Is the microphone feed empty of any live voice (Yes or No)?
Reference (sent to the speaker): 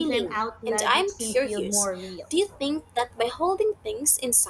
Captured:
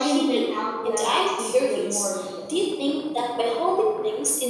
Yes